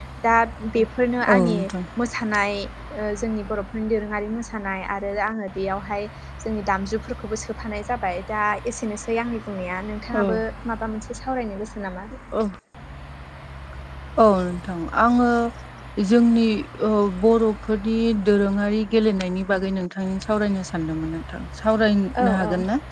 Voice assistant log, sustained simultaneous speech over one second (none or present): none